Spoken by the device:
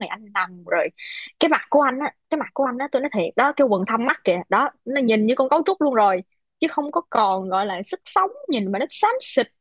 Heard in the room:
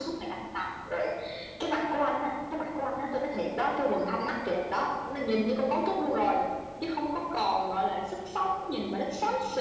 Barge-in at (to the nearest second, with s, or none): none